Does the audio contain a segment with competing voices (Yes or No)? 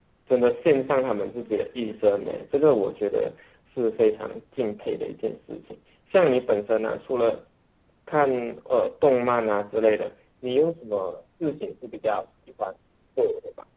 No